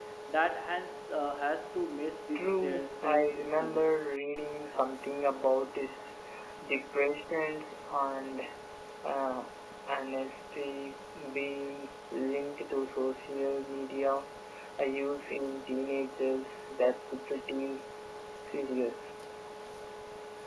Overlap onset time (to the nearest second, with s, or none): 2 s